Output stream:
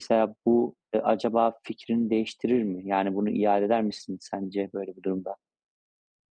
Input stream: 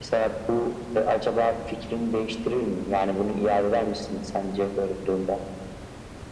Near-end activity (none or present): none